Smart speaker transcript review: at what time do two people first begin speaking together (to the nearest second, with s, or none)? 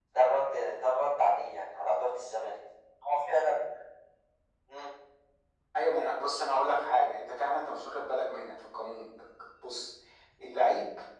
none